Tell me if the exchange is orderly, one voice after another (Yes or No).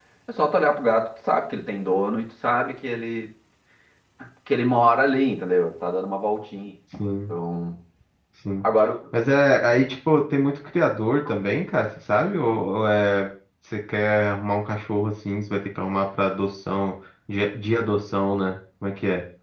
Yes